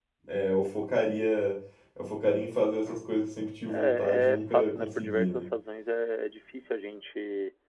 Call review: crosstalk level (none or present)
present